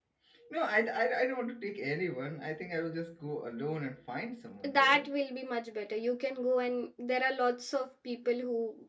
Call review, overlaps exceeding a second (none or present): none